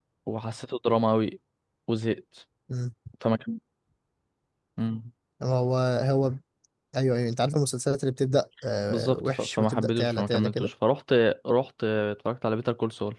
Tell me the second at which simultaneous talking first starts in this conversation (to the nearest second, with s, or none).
9 s